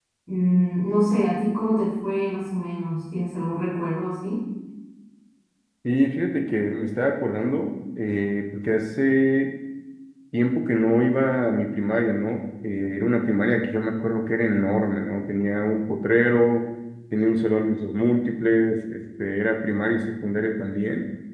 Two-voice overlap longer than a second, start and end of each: none

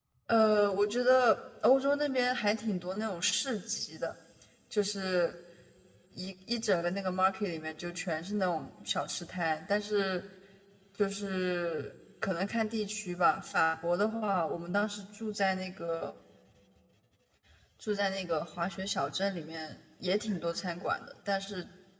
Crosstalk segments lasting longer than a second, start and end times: none

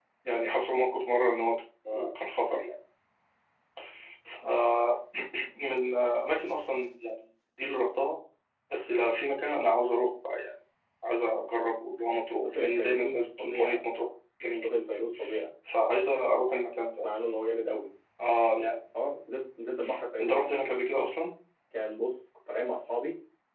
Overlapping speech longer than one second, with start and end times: 12.4-13.8

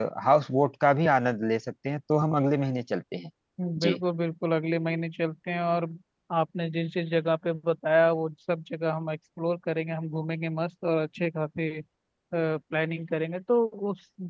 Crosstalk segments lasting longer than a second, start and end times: none

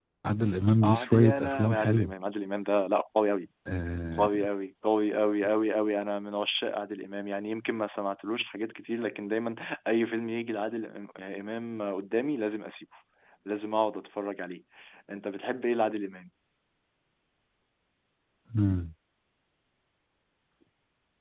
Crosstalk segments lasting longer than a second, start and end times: 0.8-2.1

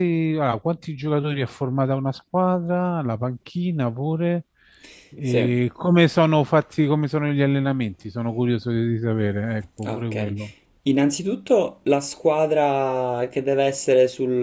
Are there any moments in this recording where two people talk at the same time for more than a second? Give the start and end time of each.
none

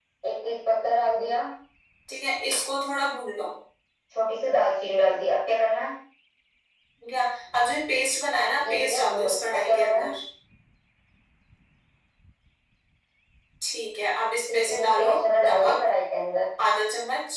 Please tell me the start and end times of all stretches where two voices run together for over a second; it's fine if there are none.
8.7-10.1, 14.5-15.8

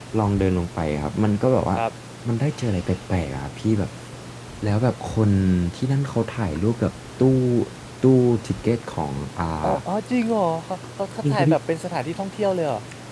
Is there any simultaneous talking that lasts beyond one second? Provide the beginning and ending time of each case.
none

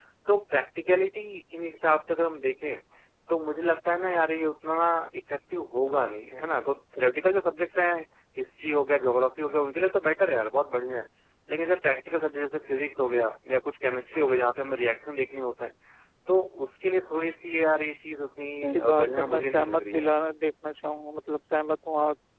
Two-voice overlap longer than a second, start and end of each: 18.6-20.1

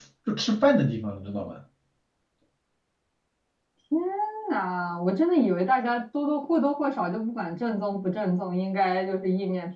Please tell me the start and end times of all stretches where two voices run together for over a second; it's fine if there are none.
none

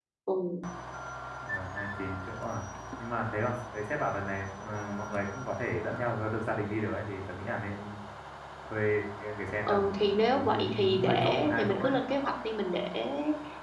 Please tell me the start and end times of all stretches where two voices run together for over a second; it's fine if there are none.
9.6-11.9

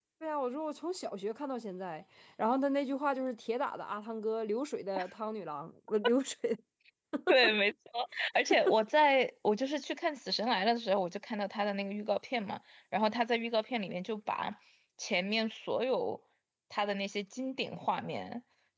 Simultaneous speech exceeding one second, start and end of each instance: none

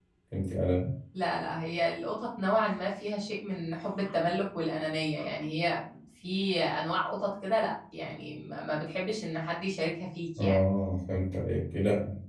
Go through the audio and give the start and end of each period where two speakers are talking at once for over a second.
none

